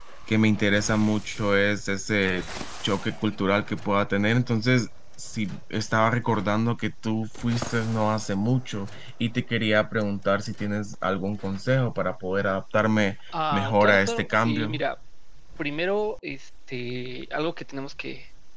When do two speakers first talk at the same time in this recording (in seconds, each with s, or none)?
13.3 s